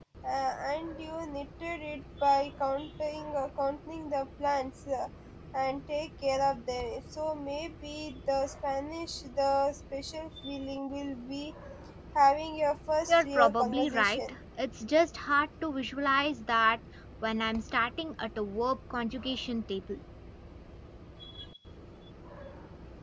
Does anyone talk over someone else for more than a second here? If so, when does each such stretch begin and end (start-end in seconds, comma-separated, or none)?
13.1-14.3